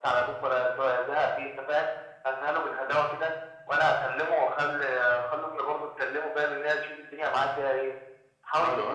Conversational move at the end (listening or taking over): listening